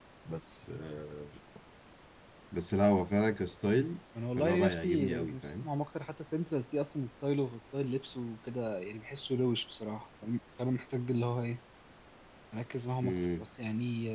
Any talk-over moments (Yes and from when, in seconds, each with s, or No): Yes, from 4.4 s